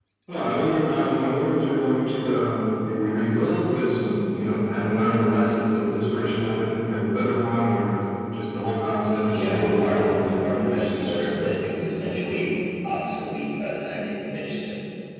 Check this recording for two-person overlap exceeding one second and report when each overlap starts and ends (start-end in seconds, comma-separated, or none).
9.3-11.4